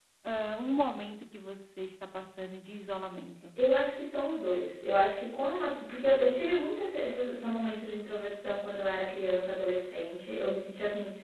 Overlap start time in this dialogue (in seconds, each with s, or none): none